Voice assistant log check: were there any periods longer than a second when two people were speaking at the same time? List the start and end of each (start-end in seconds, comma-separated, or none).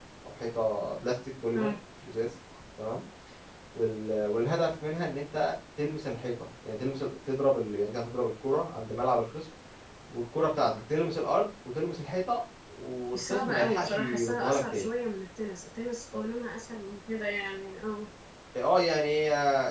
13.1-14.9